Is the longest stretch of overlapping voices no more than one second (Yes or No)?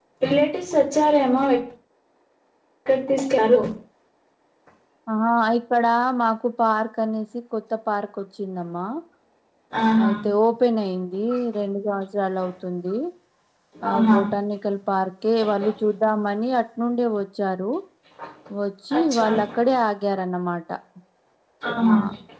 Yes